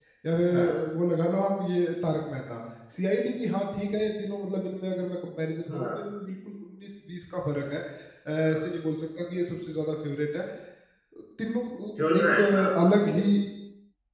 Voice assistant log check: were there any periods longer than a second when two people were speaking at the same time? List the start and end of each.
12.0-13.2

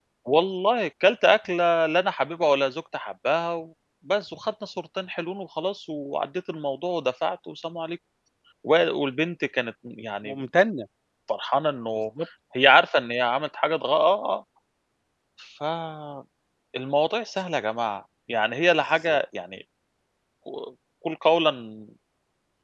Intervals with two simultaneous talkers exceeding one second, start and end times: none

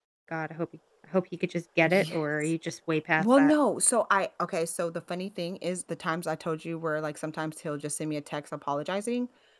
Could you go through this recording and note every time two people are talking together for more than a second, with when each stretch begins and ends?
none

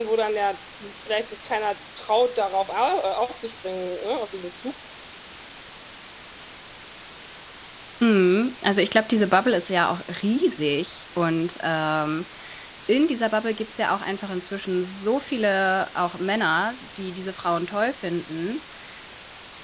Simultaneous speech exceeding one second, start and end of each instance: none

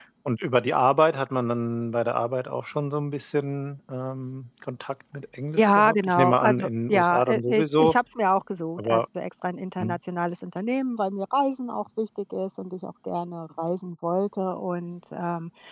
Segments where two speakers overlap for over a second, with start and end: 5.6-8.0

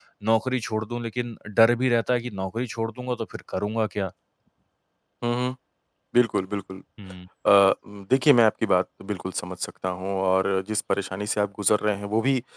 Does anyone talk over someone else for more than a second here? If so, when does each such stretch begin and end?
none

